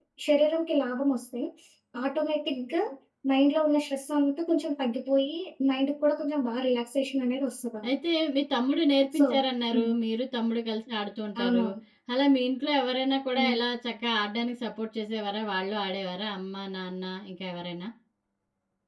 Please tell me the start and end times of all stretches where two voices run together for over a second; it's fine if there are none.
none

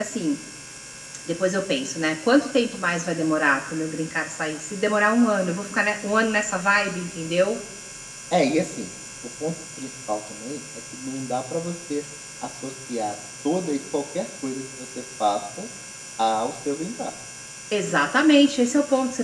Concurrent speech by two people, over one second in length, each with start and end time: none

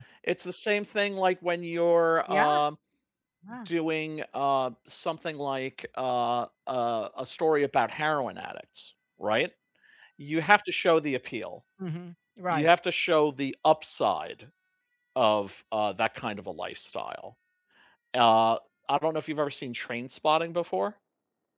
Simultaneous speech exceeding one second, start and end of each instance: none

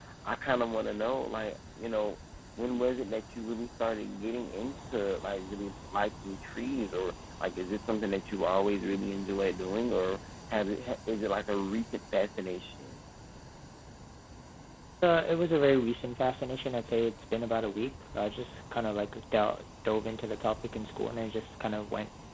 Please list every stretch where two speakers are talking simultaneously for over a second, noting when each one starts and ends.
none

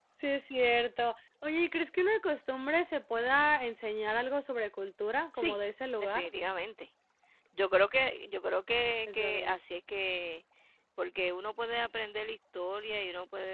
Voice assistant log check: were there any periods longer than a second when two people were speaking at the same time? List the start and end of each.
none

